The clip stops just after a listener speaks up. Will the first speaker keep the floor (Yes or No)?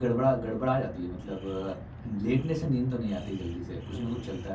No